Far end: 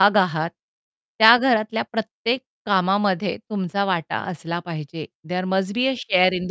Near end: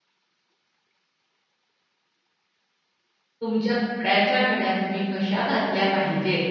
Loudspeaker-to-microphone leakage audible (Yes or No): No